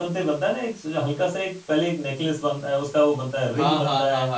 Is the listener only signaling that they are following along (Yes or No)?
No